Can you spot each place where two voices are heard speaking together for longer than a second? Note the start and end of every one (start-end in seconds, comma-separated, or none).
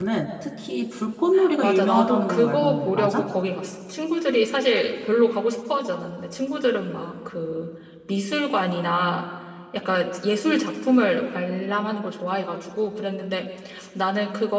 1.6-3.2